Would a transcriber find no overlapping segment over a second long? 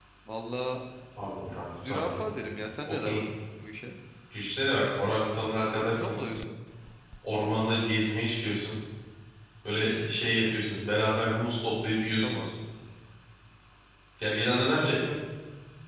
Yes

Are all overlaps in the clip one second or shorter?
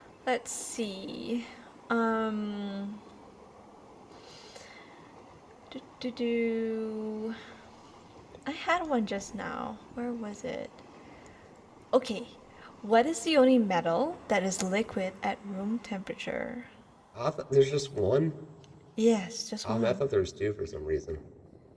Yes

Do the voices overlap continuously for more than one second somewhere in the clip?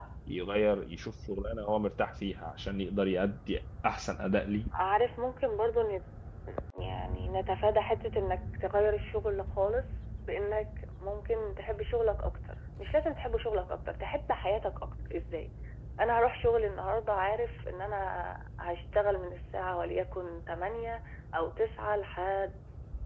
No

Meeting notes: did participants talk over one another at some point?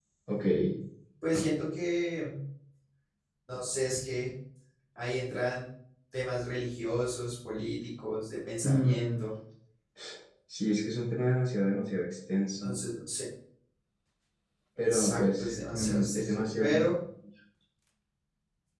Yes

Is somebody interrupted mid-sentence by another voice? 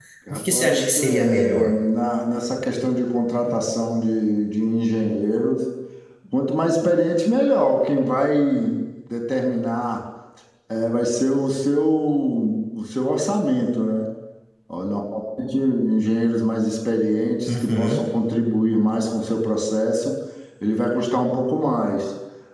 Yes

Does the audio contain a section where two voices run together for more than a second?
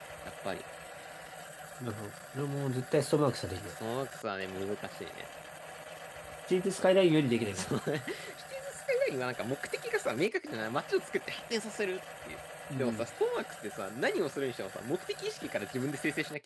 No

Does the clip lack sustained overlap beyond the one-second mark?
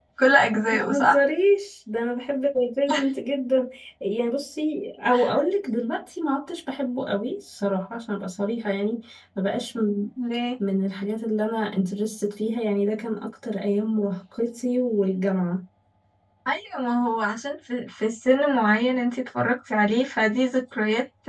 Yes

